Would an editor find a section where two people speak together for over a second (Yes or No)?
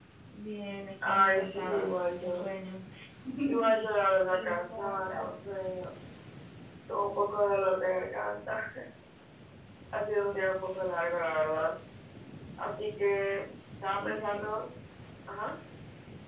Yes